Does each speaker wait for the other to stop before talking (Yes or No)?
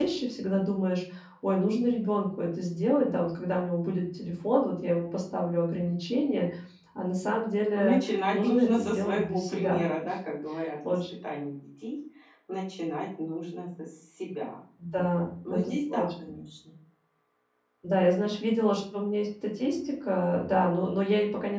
No